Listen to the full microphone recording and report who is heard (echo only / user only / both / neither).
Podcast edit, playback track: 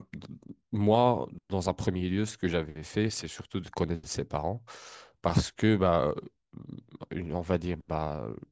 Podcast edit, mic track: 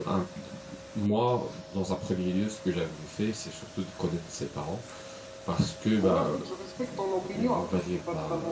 both